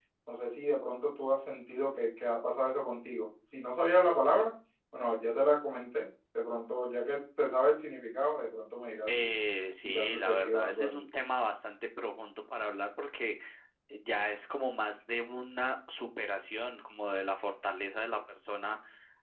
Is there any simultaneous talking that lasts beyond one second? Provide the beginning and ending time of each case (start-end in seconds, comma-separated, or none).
9.8-11.1